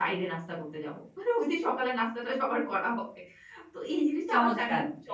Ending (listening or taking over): listening